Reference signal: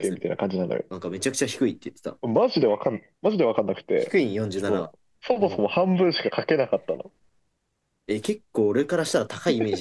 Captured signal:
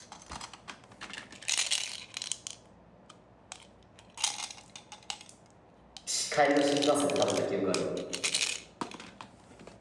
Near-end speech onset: 6.0 s

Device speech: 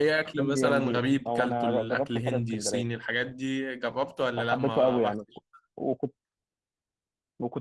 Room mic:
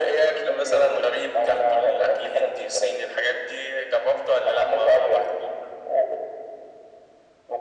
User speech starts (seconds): none

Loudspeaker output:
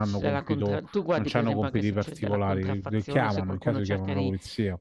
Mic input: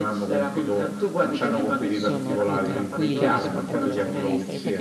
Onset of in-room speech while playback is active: 1.9 s

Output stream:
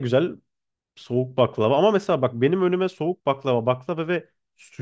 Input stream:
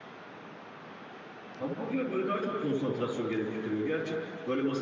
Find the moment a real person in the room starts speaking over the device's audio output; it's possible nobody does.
1.6 s

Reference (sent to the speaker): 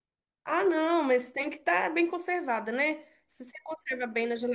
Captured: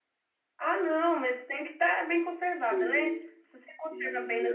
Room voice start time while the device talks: 2.5 s

